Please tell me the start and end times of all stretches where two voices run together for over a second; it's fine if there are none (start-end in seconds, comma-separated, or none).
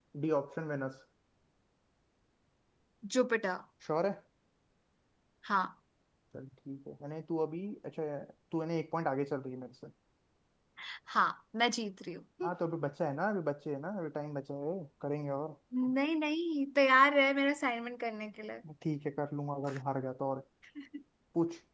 none